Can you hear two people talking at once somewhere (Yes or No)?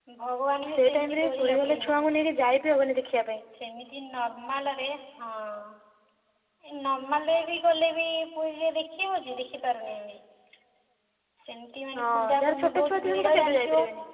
Yes